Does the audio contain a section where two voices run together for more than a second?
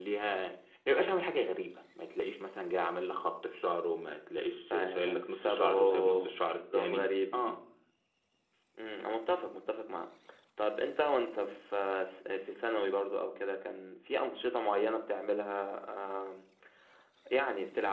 Yes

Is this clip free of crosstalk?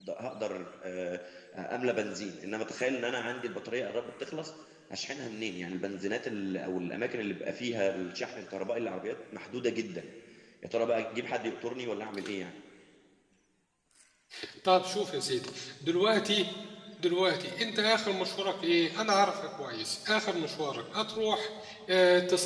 Yes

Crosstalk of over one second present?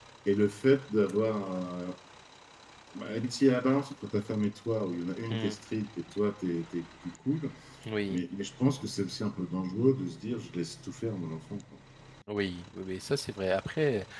No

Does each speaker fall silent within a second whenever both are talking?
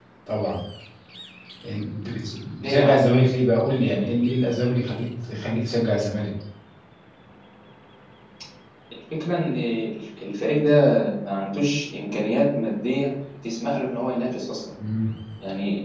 Yes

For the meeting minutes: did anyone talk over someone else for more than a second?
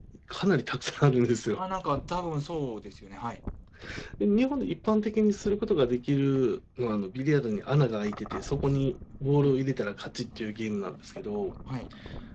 No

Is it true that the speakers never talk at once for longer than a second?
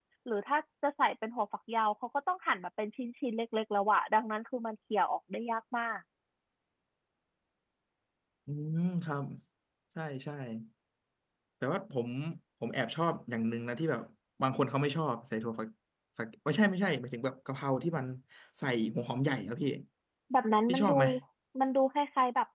Yes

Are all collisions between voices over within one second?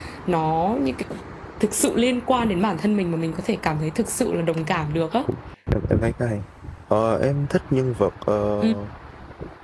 Yes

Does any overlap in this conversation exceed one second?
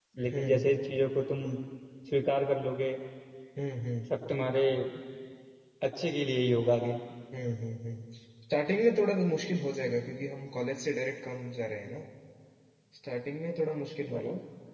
No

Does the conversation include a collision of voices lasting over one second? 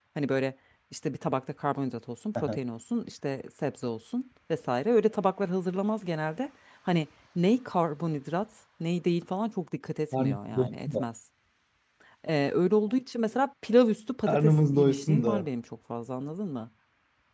Yes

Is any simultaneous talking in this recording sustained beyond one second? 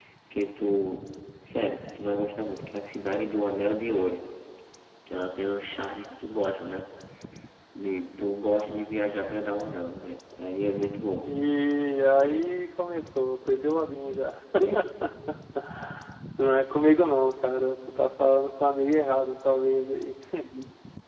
No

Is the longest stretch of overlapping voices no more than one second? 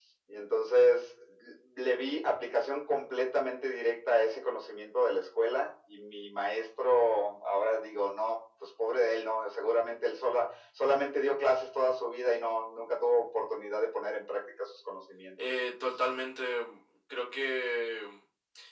Yes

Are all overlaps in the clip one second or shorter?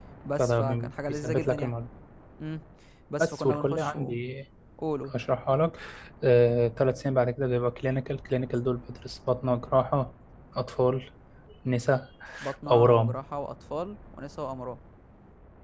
No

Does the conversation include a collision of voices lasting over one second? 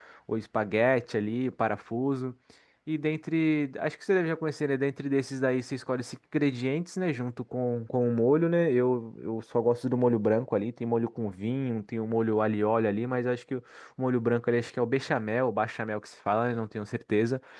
No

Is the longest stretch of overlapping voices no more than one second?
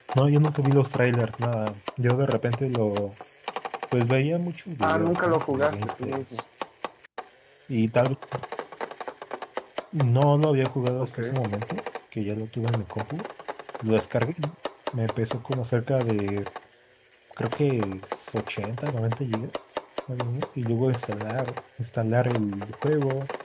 No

